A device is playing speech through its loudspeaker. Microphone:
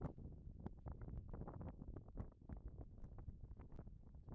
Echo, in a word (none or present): none